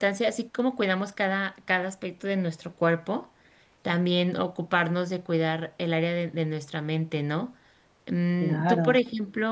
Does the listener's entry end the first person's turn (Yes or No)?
No